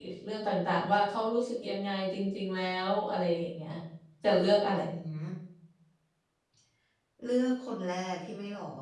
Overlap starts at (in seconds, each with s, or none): none